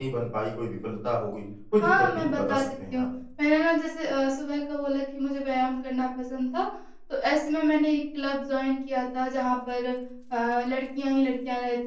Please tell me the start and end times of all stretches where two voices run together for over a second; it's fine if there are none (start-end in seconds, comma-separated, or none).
1.8-3.0